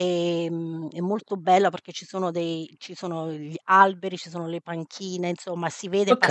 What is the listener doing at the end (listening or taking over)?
listening